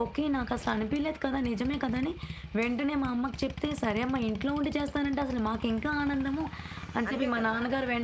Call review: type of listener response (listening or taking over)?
listening